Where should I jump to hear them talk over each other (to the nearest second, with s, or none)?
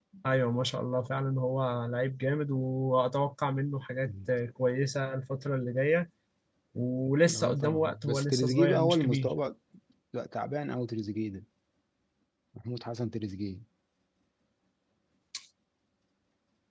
7 s